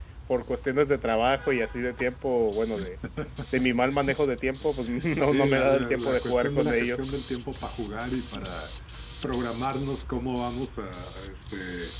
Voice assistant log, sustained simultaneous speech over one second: present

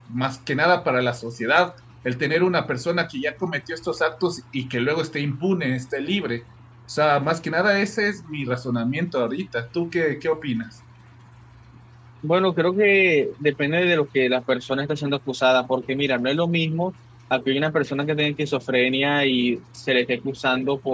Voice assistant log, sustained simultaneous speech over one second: none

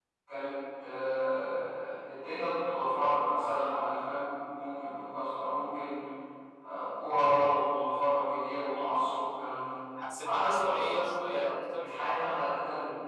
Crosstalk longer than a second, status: present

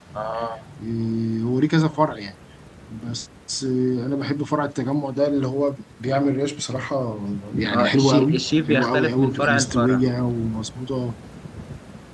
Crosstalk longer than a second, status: present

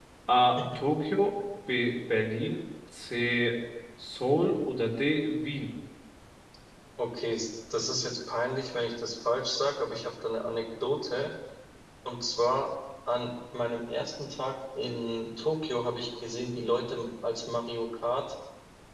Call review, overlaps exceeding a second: none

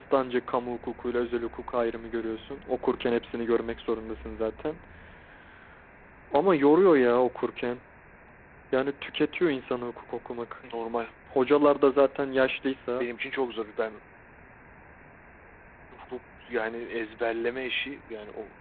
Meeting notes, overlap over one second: none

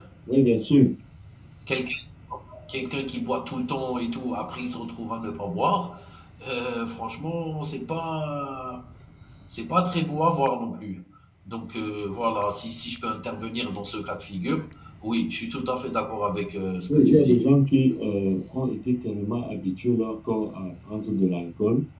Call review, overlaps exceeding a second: none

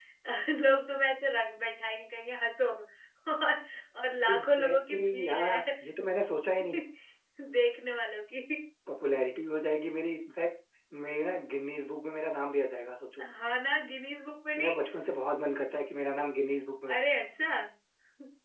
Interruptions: present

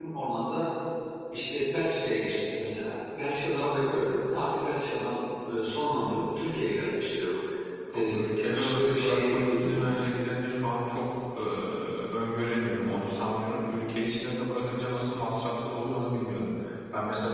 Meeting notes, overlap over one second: present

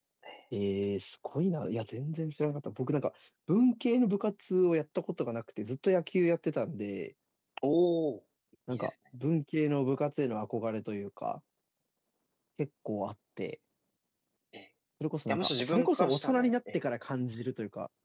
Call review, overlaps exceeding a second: present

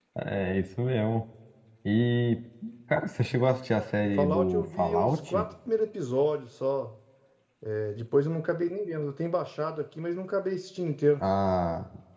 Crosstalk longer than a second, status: present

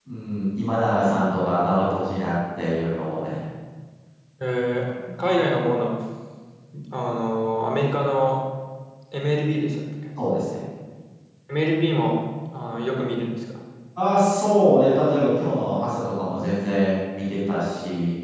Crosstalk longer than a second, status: none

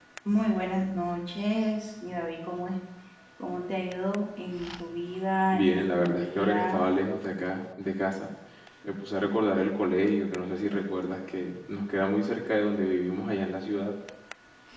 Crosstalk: present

